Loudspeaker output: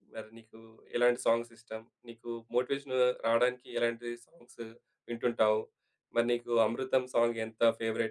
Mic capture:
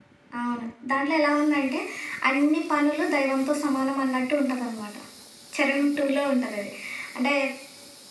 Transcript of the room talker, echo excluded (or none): అవును. దాంట్లో ఎలా ఉందంటే, అన్ని పనులు దైవంతో సమానం అన్నట్టు ఉంటదనమాట. చరణం 2లో ఉంటదది అంటే